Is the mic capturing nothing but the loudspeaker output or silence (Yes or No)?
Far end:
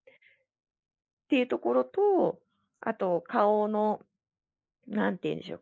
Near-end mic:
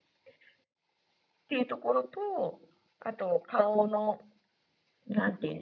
Yes